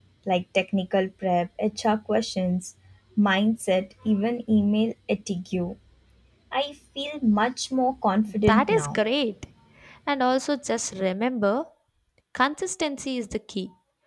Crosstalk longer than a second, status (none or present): none